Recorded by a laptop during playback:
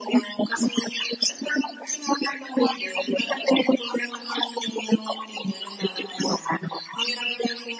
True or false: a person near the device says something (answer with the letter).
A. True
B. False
B